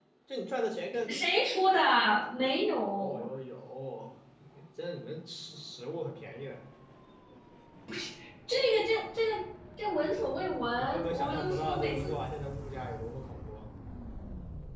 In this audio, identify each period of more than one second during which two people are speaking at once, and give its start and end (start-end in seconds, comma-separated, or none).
10.8-12.1